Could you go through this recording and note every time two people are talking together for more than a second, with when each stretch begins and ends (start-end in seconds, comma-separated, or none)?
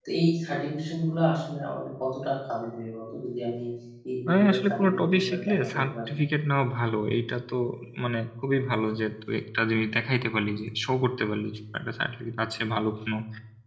4.3-6.1